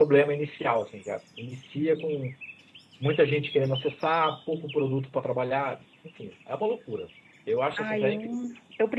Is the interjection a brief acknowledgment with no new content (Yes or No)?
No